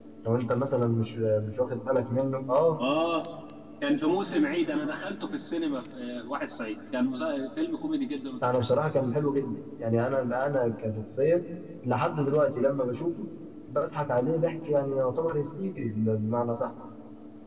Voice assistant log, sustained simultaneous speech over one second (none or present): none